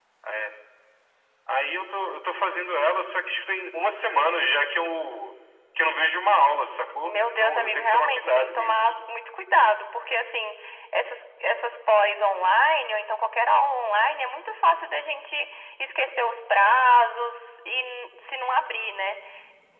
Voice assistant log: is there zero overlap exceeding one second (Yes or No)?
No